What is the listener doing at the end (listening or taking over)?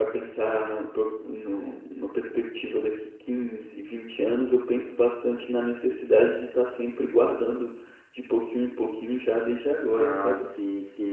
taking over